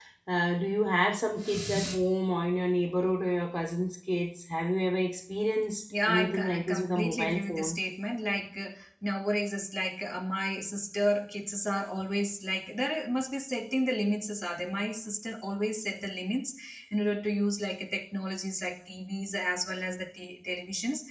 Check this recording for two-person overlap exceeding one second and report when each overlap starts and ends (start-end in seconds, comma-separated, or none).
6.0-7.8